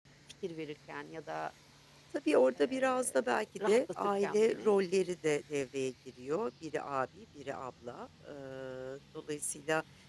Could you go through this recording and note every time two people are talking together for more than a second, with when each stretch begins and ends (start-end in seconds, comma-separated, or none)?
2.5-4.8